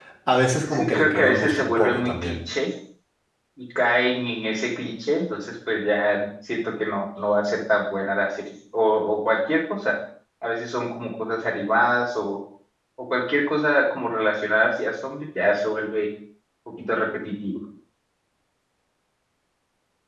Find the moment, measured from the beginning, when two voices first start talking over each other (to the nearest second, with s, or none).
1 s